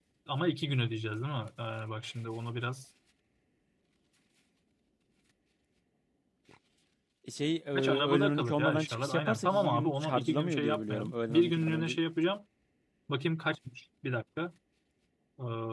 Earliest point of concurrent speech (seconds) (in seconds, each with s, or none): 7.8 s